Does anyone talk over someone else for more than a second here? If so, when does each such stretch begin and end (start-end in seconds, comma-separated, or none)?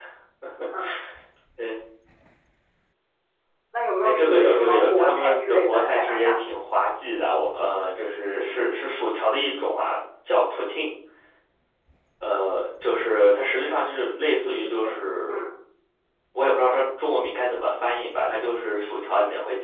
4.0-6.4